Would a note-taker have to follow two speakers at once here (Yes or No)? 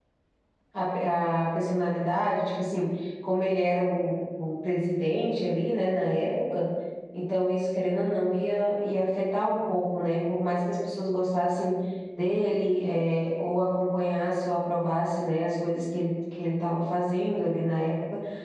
No